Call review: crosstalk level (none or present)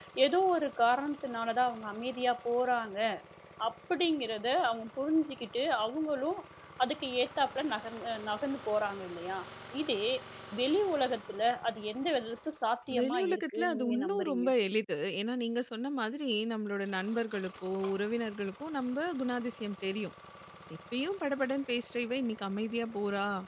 present